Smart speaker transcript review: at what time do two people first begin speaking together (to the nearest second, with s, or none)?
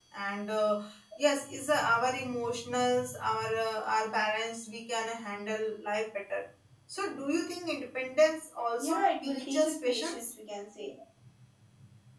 9 s